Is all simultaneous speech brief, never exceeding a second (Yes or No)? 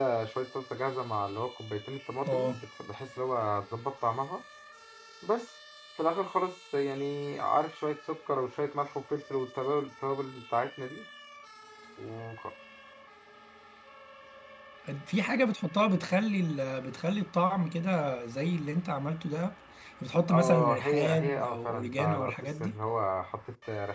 No